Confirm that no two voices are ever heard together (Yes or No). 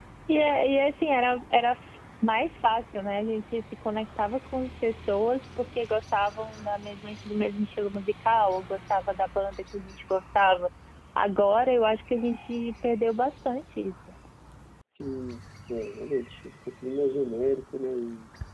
Yes